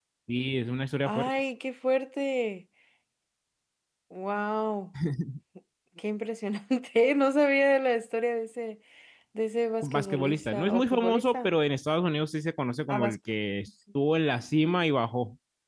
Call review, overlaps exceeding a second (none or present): present